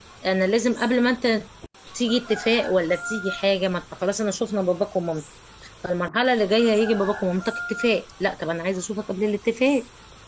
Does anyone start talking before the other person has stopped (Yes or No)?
No